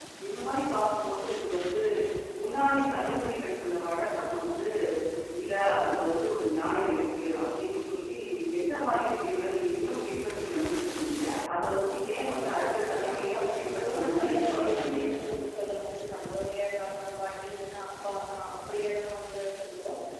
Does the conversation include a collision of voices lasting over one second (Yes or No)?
Yes